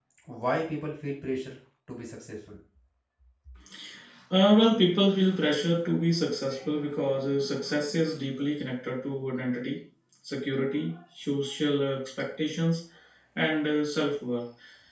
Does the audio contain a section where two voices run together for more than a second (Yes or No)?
No